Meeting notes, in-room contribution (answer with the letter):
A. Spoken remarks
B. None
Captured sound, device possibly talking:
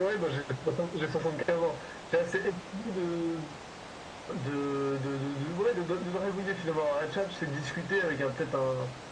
B